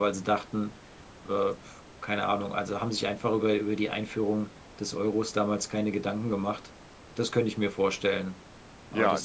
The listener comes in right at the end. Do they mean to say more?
Yes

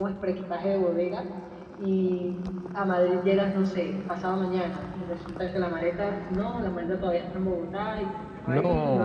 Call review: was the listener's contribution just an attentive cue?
Yes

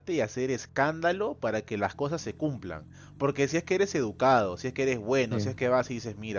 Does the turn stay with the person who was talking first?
Yes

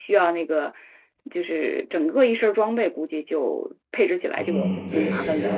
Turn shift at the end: Yes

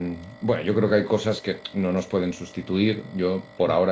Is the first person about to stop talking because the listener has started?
No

